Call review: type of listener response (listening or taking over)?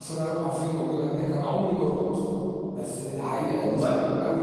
listening